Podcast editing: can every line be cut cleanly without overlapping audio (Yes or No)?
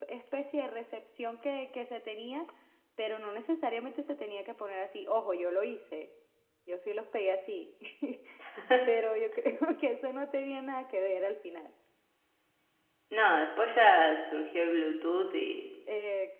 Yes